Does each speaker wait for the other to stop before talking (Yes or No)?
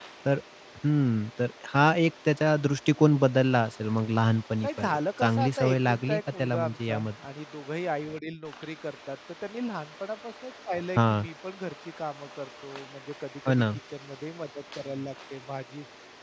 No